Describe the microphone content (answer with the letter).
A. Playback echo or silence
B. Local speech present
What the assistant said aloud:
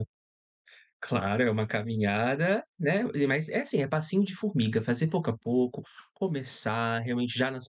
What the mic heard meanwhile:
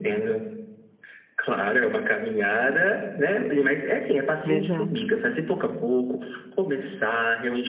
B